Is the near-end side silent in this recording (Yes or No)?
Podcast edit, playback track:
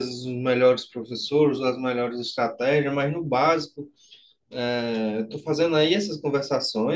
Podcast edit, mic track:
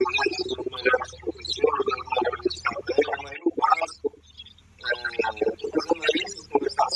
Yes